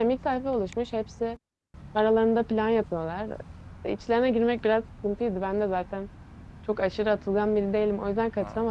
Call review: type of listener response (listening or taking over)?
listening